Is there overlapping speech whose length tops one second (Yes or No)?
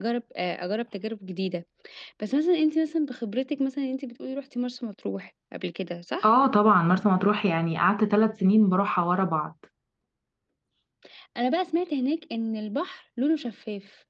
No